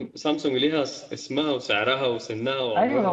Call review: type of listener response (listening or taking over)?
taking over